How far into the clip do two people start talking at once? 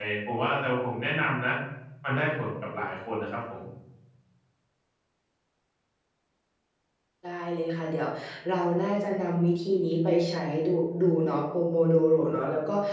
none

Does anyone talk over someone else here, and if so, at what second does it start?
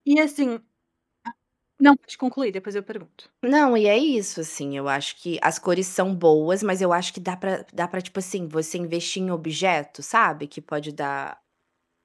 none

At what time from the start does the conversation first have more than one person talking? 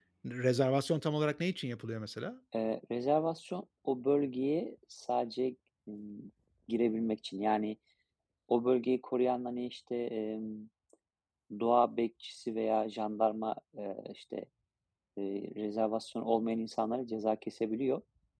none

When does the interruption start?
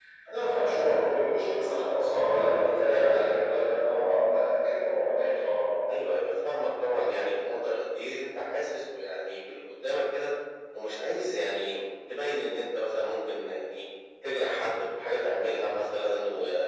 none

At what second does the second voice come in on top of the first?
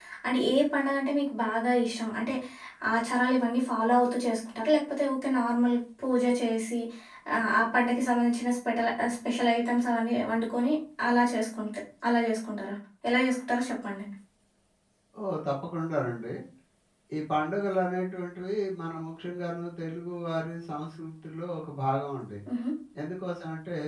none

